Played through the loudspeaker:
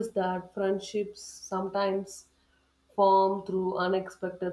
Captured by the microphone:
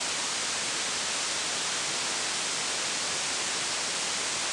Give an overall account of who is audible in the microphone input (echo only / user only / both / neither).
neither